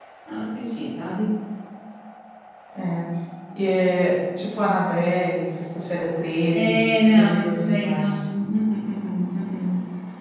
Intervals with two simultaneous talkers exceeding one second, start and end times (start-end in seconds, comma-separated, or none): 6.5-8.2